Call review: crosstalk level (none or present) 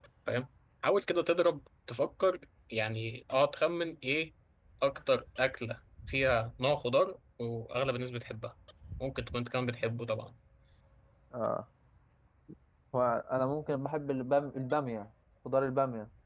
none